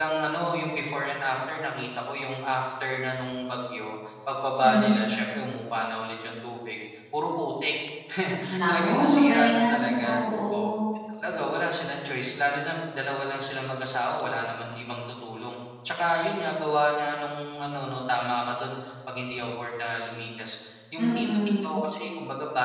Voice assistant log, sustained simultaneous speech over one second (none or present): present